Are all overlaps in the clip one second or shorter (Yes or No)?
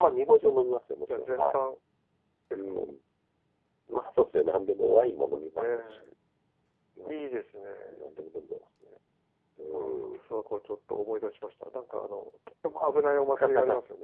Yes